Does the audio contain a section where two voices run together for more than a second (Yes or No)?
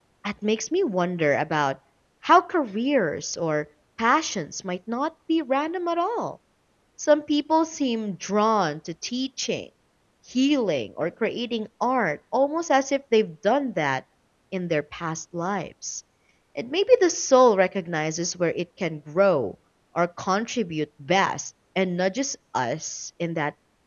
No